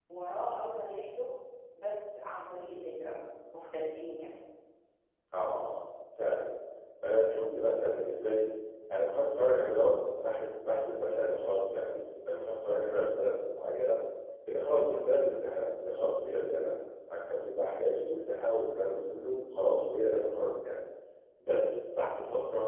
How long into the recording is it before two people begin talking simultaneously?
none

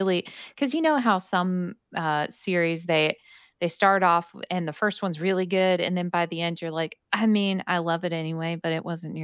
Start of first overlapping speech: none

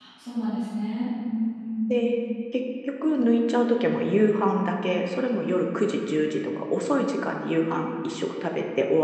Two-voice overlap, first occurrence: none

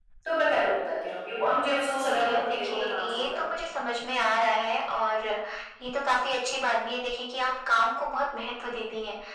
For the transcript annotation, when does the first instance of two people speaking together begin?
2.0 s

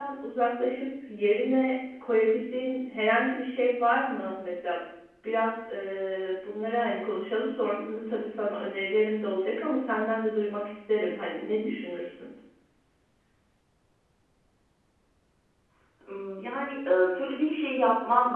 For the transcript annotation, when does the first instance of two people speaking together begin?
none

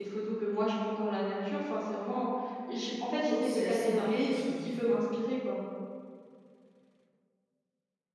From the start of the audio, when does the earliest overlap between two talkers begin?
3.3 s

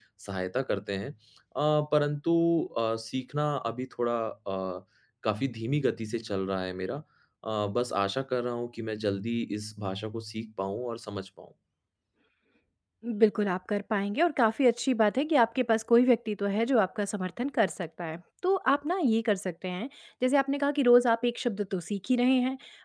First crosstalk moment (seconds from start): none

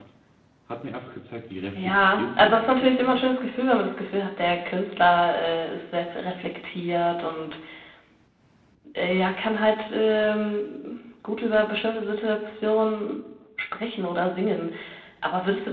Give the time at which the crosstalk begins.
1.7 s

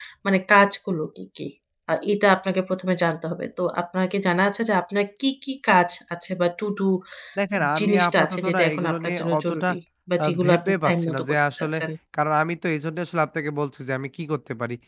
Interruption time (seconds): 7.8 s

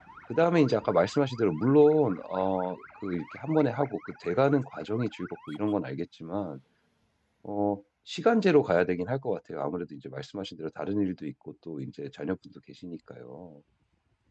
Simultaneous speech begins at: none

